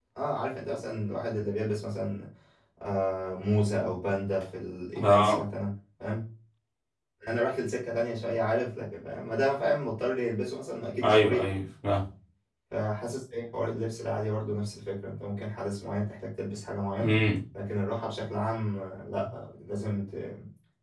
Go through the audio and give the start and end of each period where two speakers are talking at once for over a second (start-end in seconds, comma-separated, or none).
none